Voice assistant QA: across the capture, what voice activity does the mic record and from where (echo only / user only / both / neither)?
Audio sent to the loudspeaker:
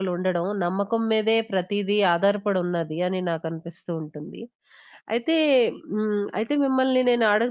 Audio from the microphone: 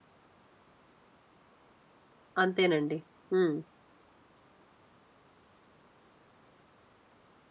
user only